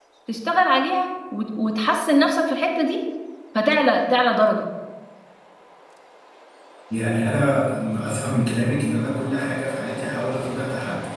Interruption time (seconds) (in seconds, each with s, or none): none